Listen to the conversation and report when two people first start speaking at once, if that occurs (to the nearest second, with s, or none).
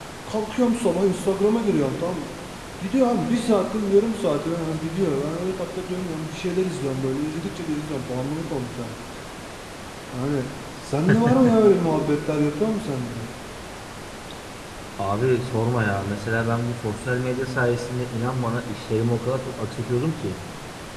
none